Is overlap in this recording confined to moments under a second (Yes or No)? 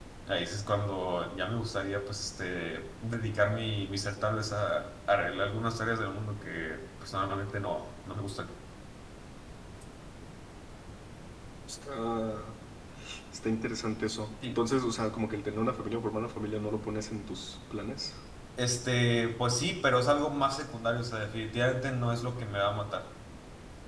Yes